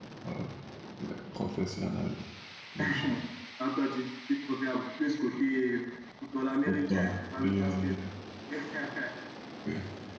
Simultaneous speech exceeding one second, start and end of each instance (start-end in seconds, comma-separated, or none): 6.6-7.9